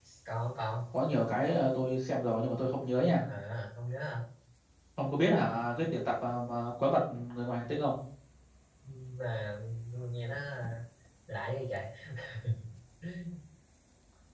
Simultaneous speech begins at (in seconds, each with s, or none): none